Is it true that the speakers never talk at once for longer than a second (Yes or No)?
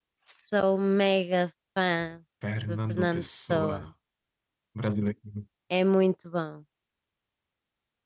No